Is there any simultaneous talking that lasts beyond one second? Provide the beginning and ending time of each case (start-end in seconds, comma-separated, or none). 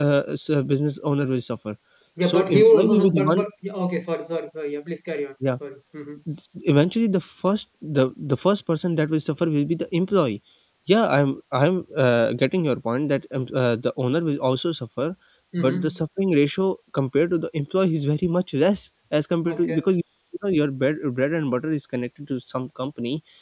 2.2-3.4